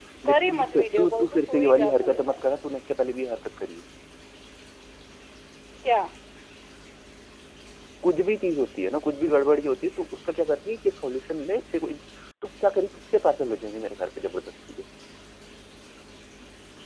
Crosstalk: present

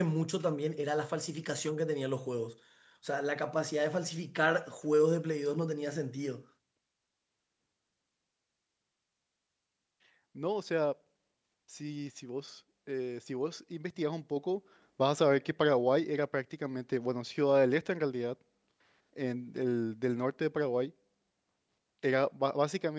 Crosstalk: none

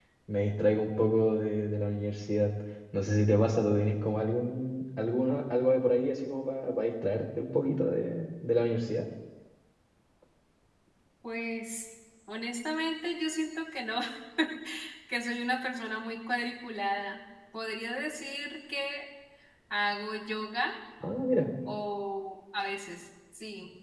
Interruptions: none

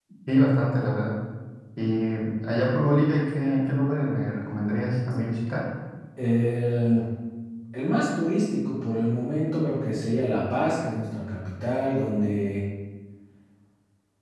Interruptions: none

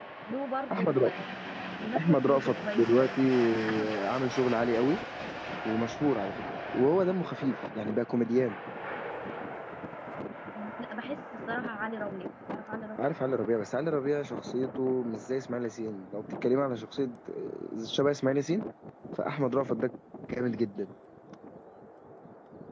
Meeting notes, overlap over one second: present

